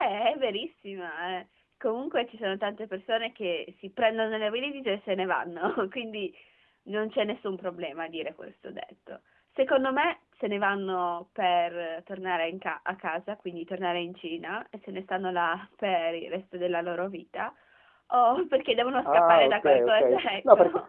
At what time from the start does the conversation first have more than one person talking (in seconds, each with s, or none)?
19.0 s